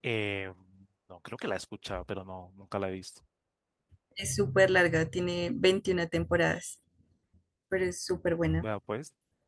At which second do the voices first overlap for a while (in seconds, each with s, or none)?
none